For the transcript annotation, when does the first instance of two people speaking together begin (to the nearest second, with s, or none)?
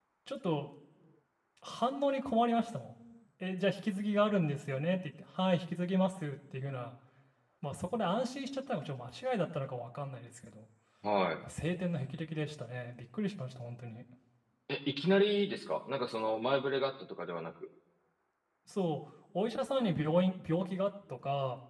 none